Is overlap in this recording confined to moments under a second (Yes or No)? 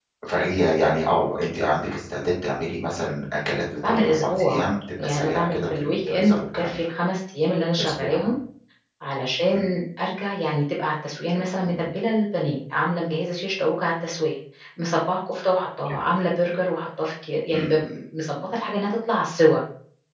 No